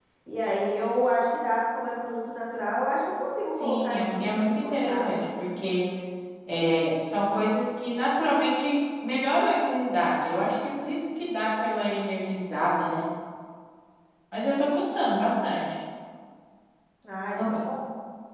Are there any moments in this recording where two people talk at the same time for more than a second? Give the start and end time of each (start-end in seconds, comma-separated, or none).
3.5-5.4